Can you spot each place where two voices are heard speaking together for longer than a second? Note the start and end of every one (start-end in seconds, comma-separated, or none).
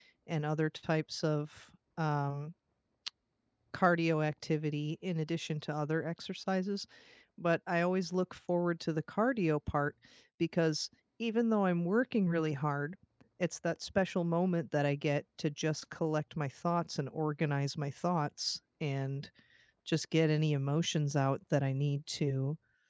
none